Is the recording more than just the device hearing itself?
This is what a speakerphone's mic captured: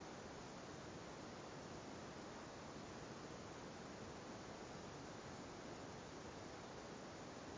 No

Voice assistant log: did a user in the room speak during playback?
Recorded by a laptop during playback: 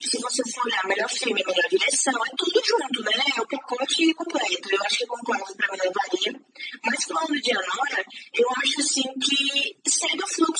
No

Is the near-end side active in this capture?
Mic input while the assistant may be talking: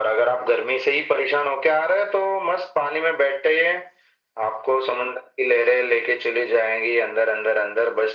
No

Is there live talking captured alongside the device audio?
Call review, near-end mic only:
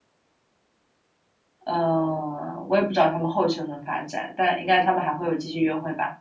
Yes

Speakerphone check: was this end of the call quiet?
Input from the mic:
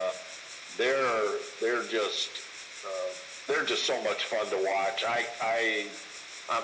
Yes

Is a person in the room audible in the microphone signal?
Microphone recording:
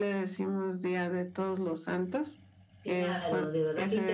Yes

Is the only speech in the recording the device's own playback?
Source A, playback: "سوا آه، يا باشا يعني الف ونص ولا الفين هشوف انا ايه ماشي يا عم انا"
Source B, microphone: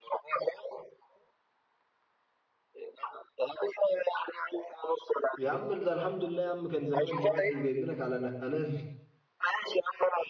No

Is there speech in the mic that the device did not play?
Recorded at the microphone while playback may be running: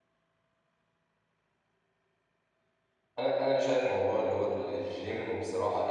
Yes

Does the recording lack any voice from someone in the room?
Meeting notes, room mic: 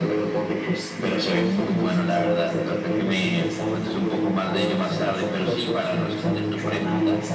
Yes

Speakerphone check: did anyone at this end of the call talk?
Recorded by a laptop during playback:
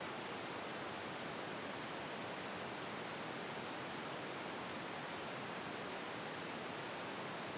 No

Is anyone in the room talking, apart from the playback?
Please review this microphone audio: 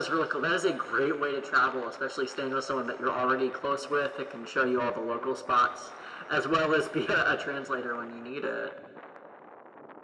No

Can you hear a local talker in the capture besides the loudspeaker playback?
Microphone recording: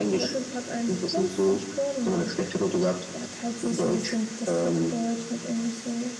No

